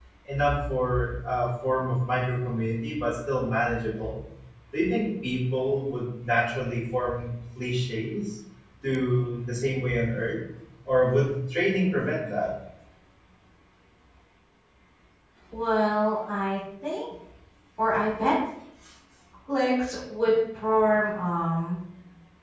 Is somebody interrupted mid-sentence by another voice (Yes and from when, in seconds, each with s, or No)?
No